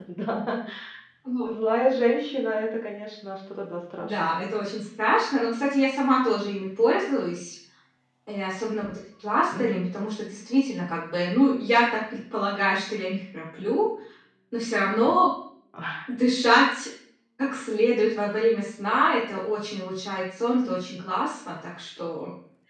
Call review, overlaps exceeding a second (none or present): none